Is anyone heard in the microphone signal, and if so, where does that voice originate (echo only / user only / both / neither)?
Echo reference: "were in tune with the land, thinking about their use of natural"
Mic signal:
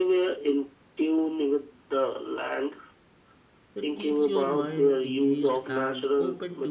both